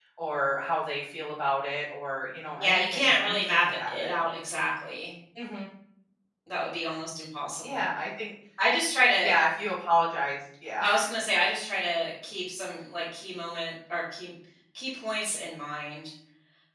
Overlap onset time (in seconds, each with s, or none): 2.6 s